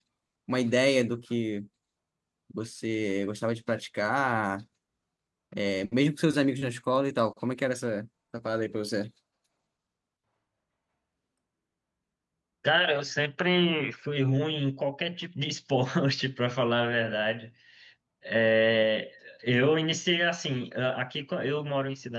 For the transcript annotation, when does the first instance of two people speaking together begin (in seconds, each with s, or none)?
none